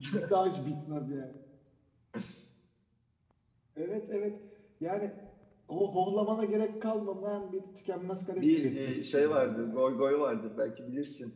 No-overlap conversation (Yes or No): No